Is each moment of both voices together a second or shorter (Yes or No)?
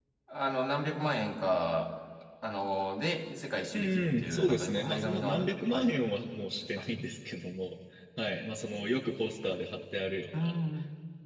No